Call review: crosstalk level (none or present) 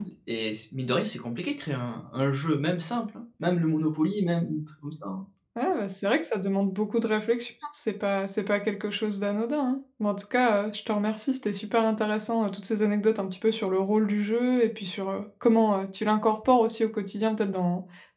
none